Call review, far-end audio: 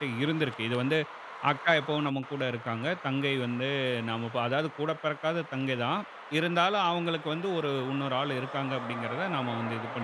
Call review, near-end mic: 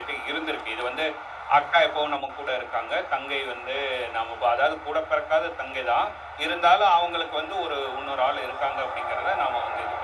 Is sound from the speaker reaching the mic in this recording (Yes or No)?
Yes